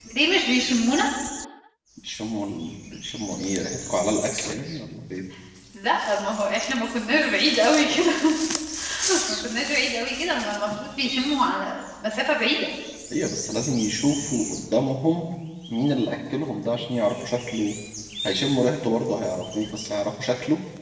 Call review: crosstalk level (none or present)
none